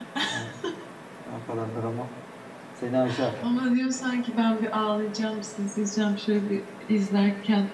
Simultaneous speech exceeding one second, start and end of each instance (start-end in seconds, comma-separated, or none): none